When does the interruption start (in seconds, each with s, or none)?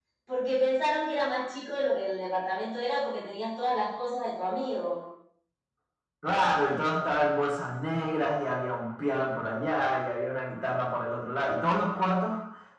none